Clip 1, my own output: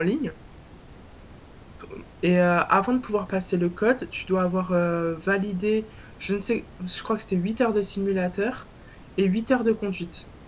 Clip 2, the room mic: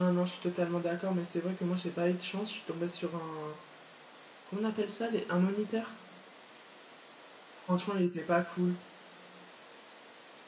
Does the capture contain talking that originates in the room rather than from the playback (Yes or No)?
Yes